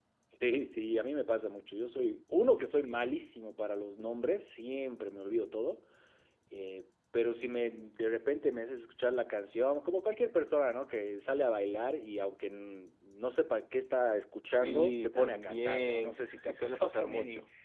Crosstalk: present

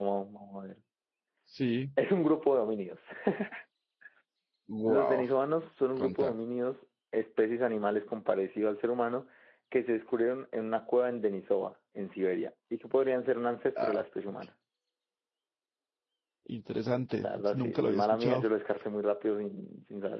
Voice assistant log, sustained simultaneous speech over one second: present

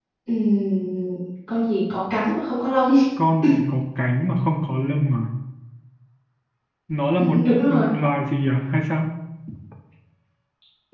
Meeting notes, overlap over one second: none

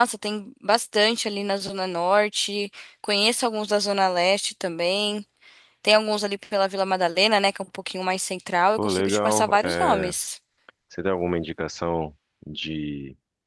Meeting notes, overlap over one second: present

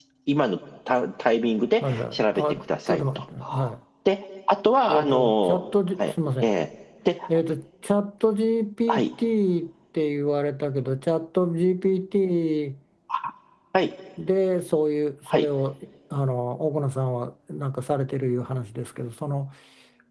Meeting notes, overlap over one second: present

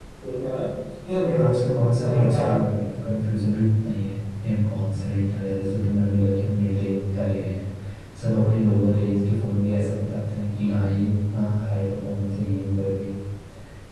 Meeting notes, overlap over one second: present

